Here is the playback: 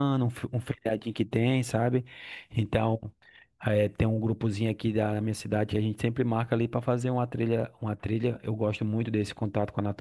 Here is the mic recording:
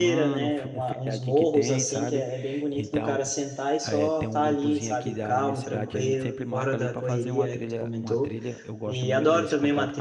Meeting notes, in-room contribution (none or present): present